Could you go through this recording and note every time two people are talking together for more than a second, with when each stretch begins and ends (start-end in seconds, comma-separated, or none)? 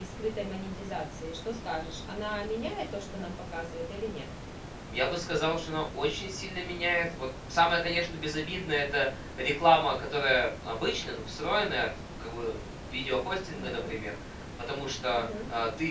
none